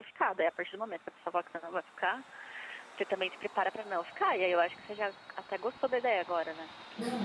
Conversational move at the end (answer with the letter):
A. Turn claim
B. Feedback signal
A